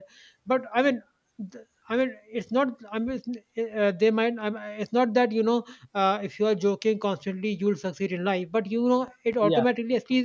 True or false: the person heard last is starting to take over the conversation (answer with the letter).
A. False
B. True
A